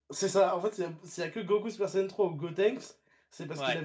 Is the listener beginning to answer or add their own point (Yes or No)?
No